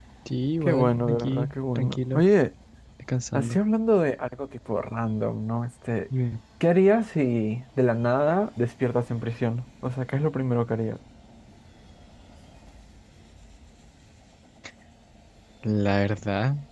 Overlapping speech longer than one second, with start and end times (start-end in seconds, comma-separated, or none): 0.6-2.2